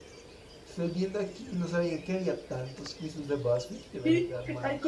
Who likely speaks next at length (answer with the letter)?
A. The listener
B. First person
A